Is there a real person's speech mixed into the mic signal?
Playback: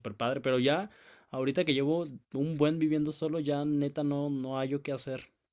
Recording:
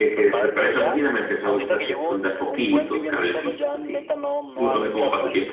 Yes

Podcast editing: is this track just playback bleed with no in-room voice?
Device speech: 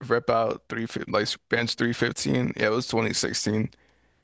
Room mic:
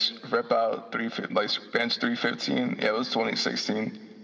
Yes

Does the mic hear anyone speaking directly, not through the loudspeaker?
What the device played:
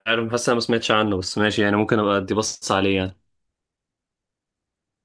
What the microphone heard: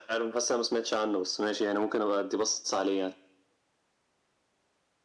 No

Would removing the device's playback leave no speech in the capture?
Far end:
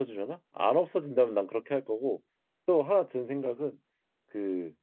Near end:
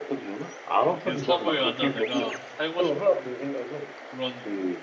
No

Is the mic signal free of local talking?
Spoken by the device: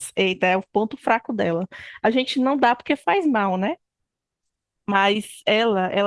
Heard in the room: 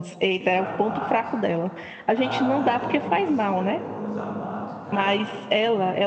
No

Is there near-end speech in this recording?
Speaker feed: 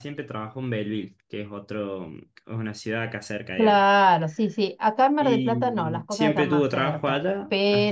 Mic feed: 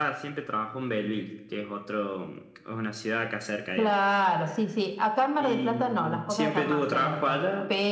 No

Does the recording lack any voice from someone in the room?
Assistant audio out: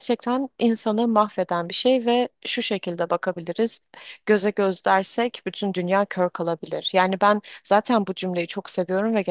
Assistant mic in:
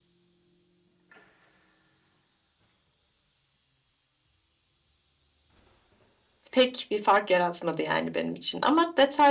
No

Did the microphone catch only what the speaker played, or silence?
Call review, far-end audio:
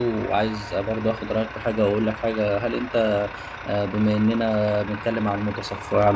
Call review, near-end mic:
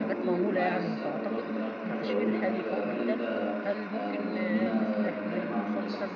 No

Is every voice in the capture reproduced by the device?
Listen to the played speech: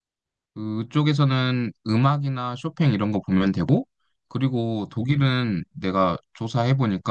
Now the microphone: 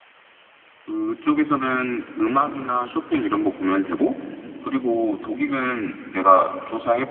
Yes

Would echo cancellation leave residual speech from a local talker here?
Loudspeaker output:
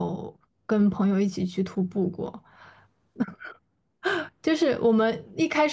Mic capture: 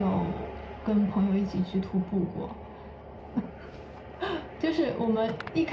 No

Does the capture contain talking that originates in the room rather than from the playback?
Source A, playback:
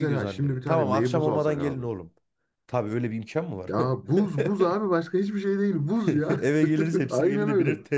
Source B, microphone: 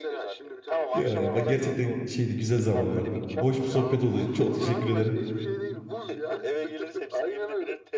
Yes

